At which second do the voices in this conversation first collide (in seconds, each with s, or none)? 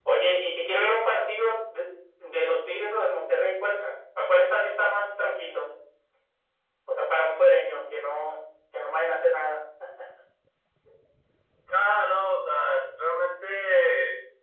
none